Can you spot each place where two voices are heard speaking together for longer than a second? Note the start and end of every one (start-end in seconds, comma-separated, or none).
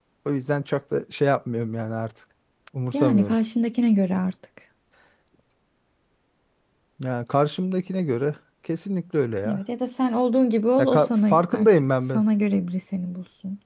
10.8-12.2